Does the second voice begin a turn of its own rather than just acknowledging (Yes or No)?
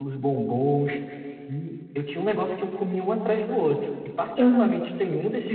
No